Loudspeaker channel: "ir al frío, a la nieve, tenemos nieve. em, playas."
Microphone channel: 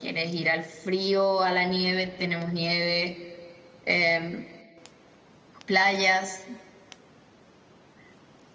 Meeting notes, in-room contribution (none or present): none